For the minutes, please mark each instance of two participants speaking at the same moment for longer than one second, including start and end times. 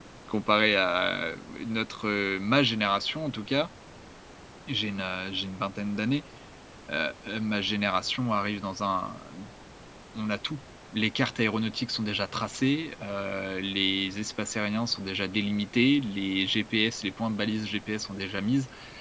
none

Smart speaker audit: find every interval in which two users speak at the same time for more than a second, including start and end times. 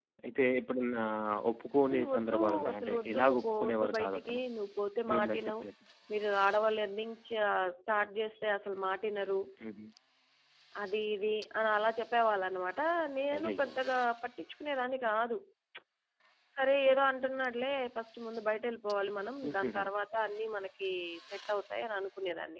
1.9-4.4

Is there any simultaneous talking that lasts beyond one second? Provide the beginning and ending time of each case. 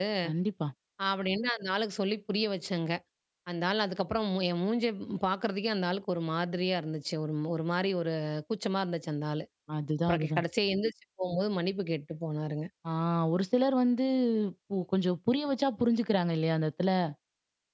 none

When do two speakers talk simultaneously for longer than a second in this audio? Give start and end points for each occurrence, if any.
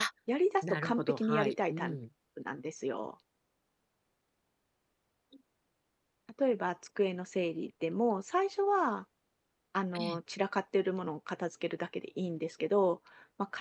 0.6-2.0

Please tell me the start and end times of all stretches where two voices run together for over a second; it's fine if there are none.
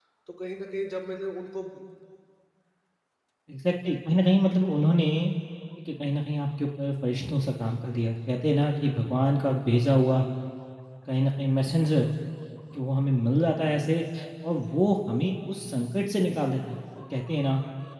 none

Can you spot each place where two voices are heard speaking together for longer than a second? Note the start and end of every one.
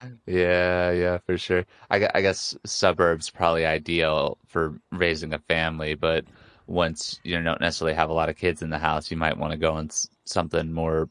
none

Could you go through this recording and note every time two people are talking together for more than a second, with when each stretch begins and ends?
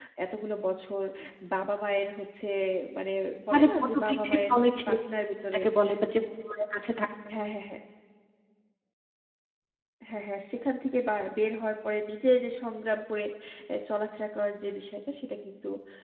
3.5-4.9

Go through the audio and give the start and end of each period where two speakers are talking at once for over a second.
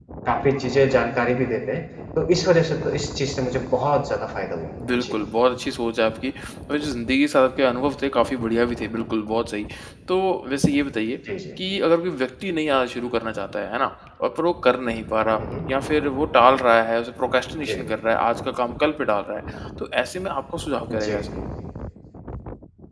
none

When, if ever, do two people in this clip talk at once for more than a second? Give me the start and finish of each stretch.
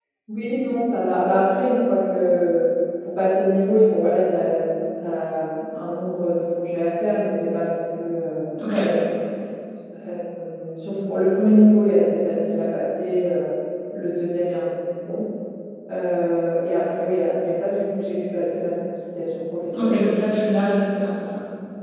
none

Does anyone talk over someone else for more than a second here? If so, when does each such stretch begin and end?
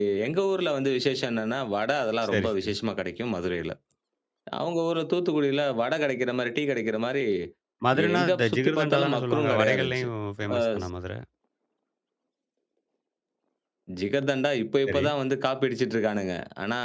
8.2-10.1

